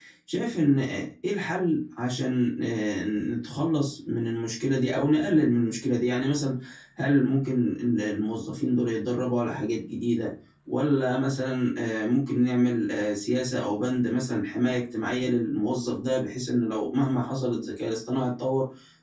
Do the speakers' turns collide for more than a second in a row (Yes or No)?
No